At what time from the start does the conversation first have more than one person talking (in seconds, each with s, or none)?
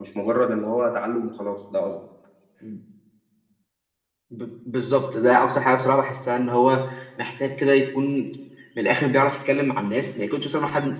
none